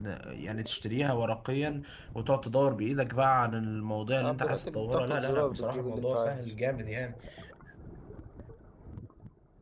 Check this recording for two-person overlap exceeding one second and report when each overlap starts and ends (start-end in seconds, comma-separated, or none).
4.2-6.5